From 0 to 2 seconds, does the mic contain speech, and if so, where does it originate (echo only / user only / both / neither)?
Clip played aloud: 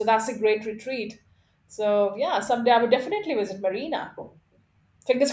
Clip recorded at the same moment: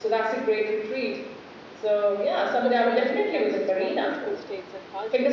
echo only